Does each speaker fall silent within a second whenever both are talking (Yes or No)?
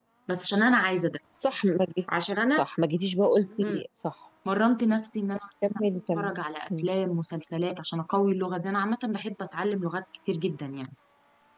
Yes